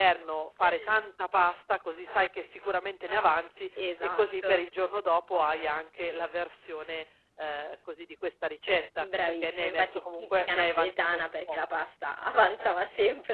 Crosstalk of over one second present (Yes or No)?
Yes